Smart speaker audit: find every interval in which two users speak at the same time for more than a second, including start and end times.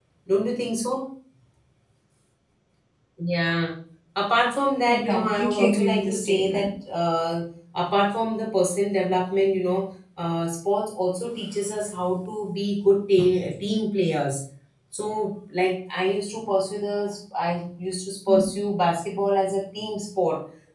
4.8-6.7

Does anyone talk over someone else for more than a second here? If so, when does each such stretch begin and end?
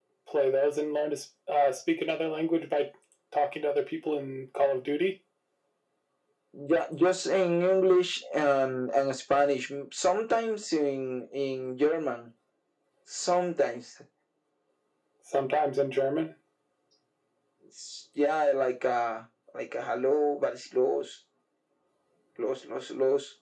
none

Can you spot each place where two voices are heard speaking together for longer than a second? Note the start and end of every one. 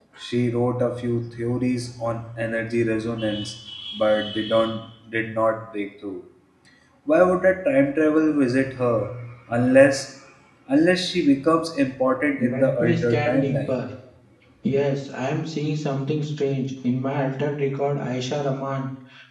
12.4-13.8

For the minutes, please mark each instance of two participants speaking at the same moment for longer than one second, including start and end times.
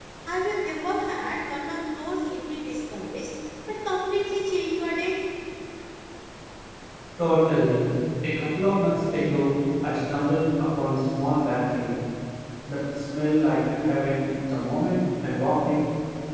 none

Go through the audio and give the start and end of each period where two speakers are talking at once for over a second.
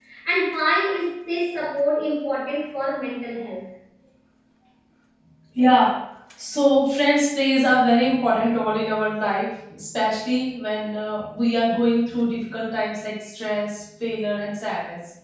none

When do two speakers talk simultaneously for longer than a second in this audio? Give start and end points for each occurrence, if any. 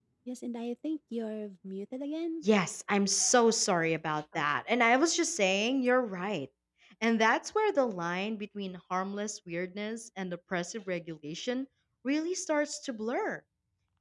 none

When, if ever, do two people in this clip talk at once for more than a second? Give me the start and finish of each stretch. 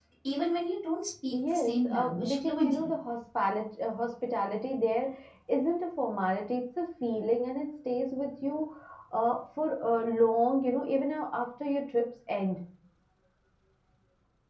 1.3-2.9

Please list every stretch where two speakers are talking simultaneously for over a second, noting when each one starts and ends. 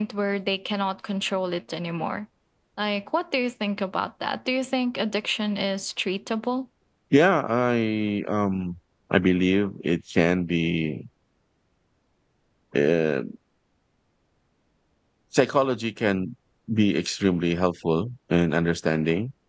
none

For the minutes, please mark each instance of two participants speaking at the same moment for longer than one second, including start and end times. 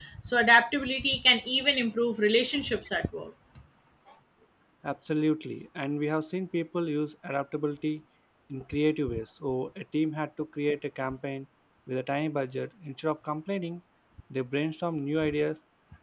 none

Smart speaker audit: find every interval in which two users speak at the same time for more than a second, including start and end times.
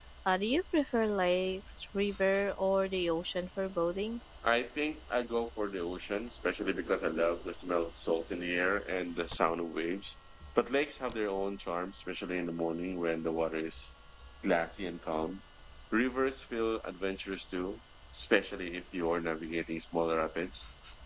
none

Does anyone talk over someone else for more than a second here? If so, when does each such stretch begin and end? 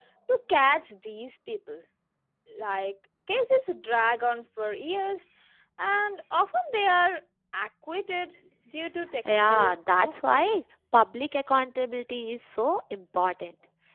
9.3-10.6

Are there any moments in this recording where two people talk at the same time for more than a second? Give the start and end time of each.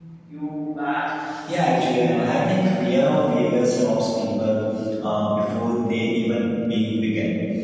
1.5-2.8

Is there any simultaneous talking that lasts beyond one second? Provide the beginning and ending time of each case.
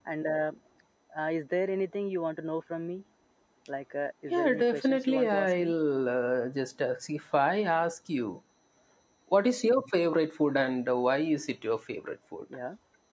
4.3-5.7

